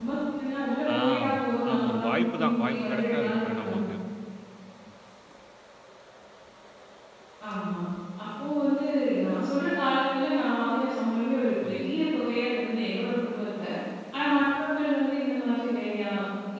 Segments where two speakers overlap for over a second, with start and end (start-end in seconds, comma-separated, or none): 0.9-3.8